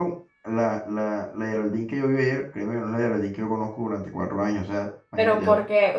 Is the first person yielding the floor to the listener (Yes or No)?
Yes